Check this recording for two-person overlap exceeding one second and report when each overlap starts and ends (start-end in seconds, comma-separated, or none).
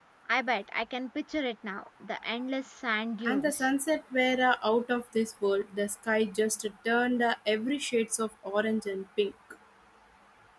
none